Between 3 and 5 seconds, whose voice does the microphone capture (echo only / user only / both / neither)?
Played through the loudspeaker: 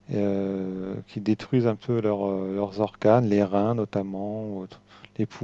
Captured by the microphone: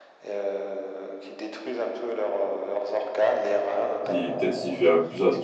both